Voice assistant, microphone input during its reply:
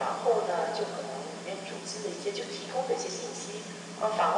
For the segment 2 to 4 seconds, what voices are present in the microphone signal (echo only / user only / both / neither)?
echo only